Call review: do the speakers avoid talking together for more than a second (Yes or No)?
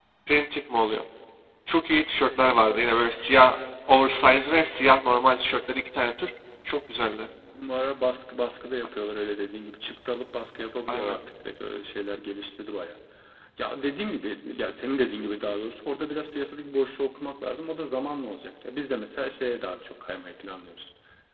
Yes